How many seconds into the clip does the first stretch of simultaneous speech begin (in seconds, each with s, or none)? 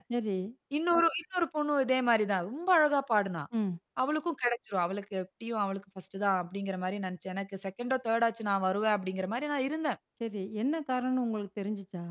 none